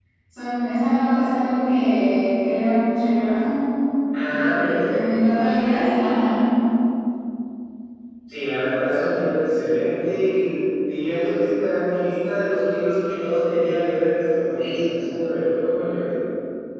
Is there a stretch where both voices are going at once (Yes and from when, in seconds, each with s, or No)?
Yes, from 4.2 s